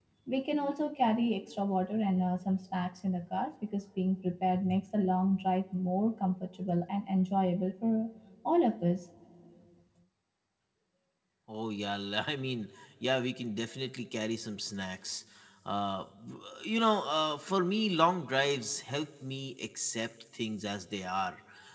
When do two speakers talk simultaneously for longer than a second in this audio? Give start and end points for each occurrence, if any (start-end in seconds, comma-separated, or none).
none